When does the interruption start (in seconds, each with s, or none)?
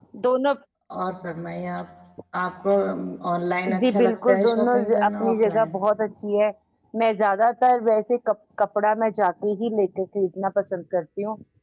3.8 s